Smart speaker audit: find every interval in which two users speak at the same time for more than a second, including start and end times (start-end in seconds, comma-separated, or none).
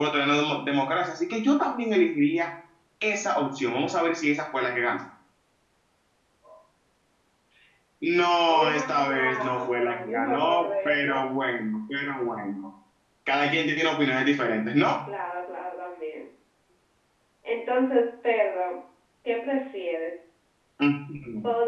8.5-11.2